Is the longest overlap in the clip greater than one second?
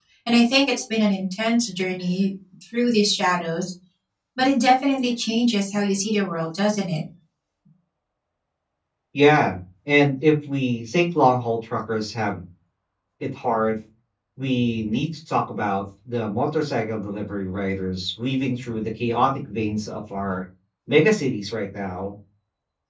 No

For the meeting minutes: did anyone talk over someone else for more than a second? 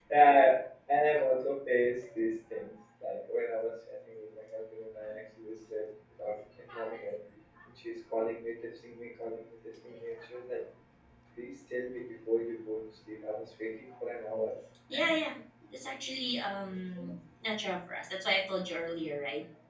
No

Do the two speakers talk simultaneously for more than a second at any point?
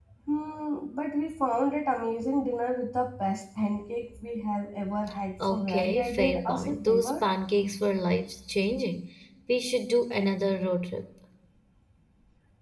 Yes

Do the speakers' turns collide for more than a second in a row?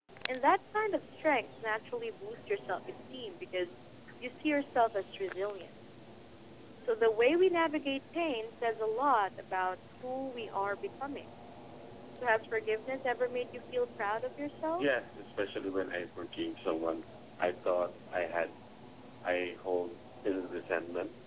No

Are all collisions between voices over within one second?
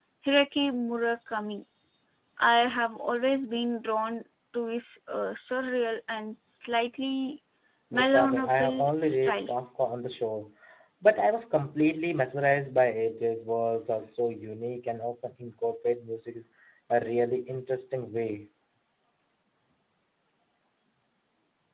No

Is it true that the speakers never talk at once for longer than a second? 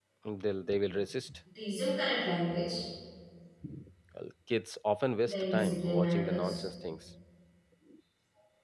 No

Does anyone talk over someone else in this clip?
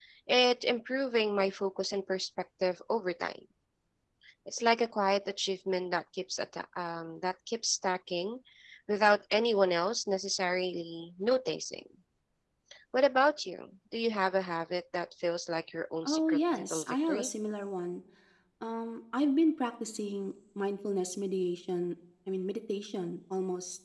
Yes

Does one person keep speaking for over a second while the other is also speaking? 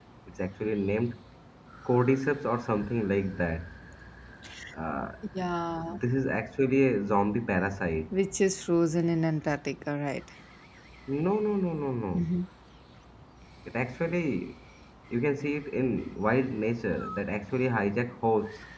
No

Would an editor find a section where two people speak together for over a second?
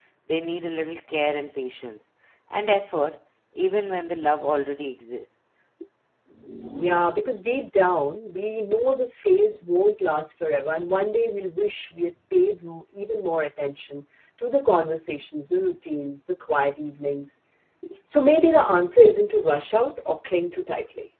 No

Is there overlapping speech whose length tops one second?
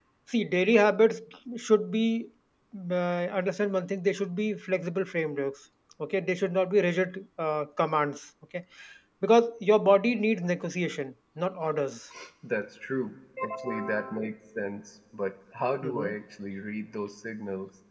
No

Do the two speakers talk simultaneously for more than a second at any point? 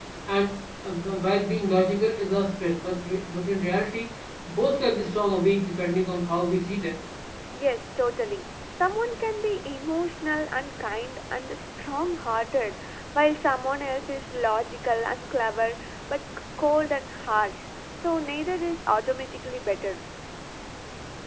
No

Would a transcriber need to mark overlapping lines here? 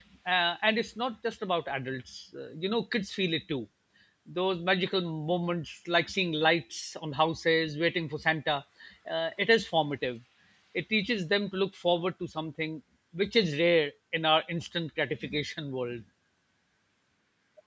No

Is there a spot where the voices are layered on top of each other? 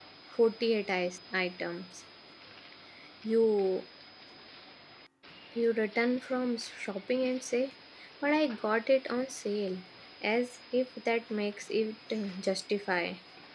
No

